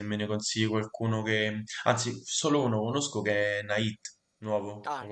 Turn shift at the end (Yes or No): Yes